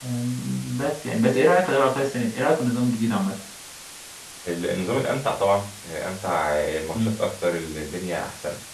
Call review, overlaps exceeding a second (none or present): none